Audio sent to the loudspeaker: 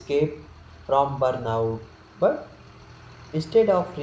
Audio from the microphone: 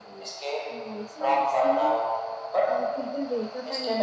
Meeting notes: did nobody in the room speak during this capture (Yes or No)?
No